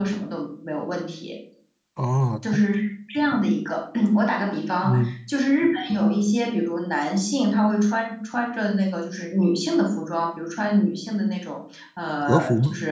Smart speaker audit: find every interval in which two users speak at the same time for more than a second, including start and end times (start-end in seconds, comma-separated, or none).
none